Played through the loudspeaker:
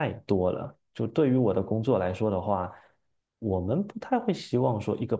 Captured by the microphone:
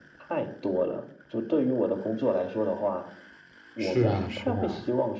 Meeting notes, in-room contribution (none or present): present